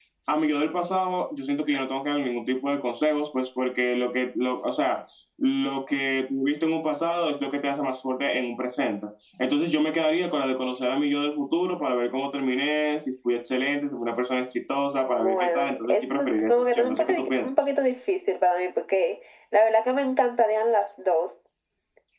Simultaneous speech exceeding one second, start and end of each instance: 15.2-17.4

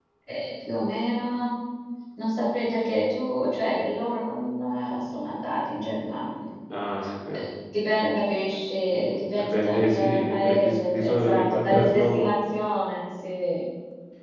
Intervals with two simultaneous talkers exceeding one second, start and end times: 8.9-12.3

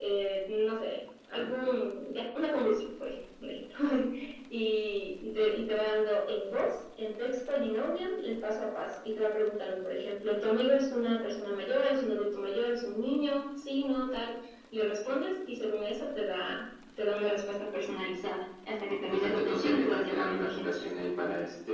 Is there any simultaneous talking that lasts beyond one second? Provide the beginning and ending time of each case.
18.9-20.8

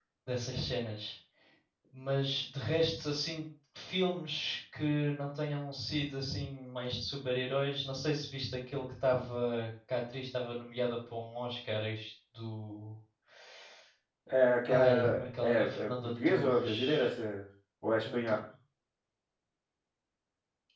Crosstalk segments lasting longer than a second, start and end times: 14.7-17.1

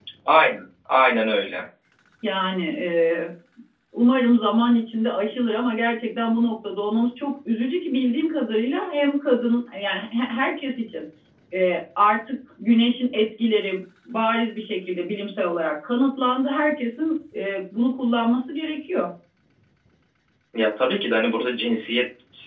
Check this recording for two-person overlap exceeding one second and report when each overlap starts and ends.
none

